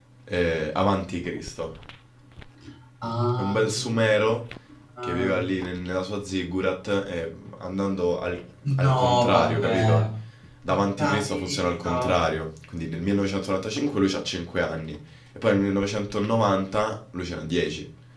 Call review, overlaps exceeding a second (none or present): present